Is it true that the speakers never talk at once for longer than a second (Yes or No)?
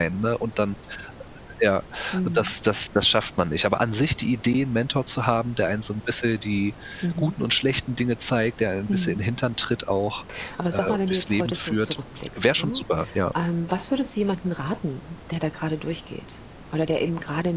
No